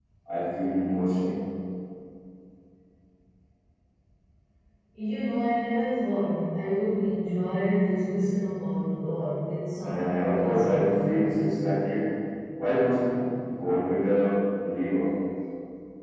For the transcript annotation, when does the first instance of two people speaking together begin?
9.8 s

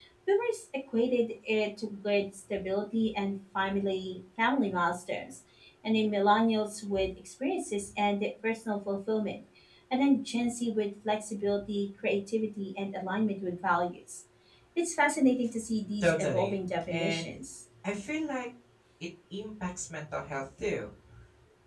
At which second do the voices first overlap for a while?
16.0 s

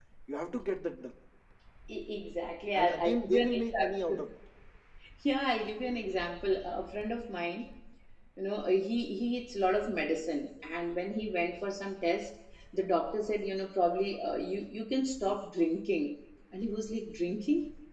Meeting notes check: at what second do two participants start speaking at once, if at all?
2.7 s

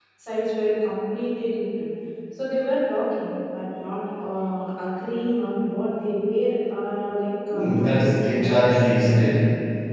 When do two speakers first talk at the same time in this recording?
7.5 s

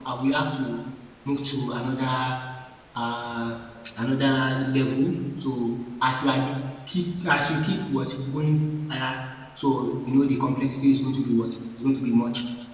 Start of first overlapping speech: none

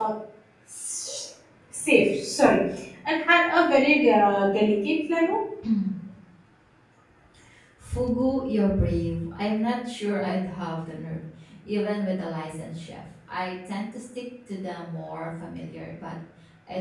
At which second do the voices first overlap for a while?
none

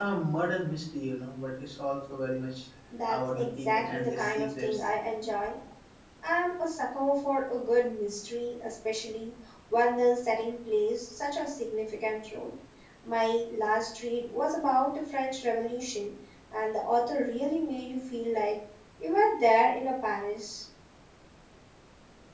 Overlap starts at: 2.9 s

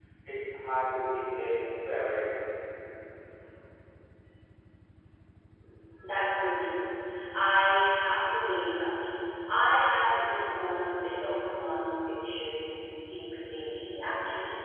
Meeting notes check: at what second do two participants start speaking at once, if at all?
none

